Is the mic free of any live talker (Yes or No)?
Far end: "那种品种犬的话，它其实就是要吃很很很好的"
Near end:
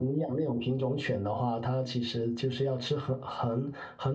Yes